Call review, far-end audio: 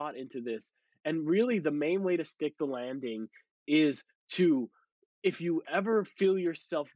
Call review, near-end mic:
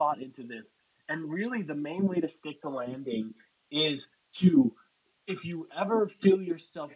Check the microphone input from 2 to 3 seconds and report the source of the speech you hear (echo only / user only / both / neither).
echo only